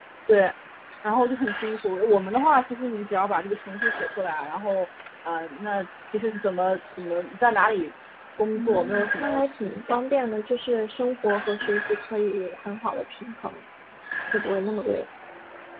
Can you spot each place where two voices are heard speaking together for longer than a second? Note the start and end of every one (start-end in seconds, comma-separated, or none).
8.5-10.0